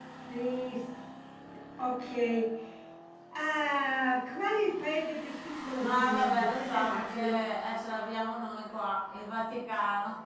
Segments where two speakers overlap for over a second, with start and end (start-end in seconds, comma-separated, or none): 5.8-7.4